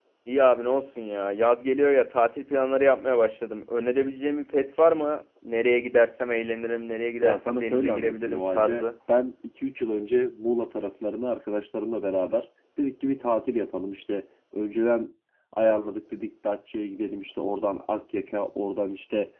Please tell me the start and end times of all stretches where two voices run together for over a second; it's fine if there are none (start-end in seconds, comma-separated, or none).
7.2-8.9